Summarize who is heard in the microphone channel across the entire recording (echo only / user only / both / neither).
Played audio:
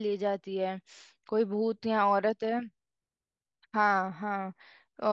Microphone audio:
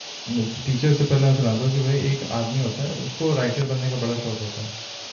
user only